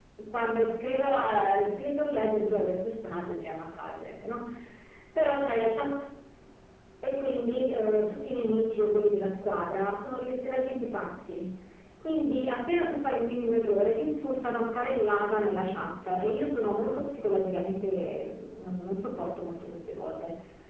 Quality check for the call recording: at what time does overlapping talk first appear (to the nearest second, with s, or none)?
none